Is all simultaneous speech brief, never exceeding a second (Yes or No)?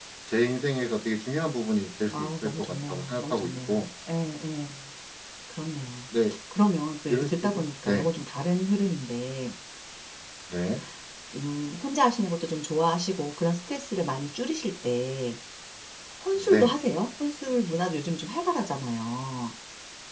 No